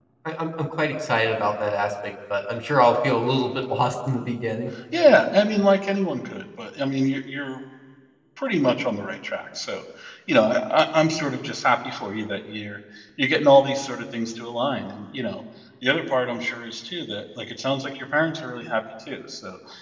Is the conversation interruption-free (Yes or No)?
Yes